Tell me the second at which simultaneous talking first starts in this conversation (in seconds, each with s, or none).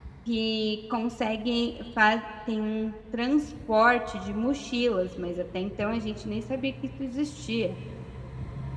none